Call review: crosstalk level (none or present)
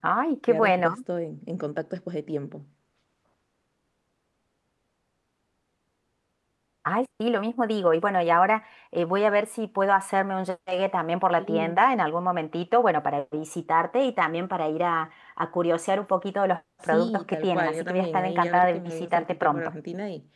present